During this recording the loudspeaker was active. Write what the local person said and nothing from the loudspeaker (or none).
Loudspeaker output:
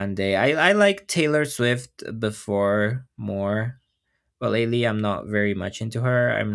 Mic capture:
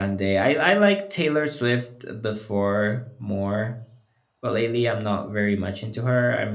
none